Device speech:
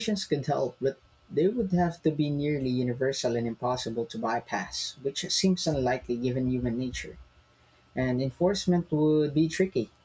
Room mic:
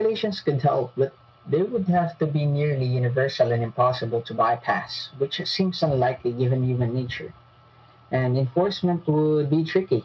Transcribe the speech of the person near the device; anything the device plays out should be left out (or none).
none